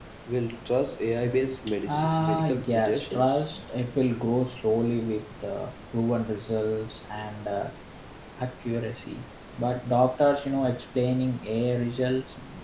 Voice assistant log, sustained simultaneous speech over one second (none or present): present